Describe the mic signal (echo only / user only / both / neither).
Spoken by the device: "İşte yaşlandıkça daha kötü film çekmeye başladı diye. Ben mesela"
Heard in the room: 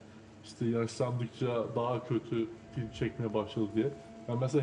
echo only